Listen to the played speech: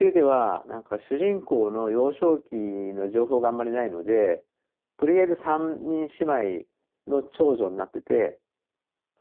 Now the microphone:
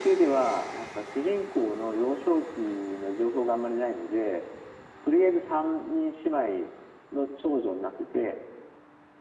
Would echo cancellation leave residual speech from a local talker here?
No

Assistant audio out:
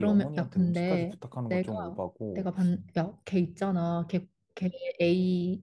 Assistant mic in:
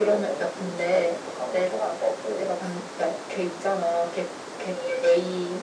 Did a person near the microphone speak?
No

